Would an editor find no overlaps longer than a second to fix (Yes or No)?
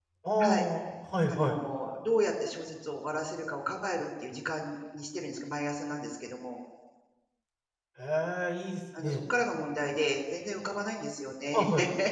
Yes